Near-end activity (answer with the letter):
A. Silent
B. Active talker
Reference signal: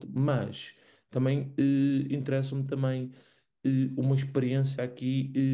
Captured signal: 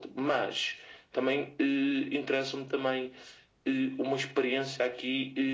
A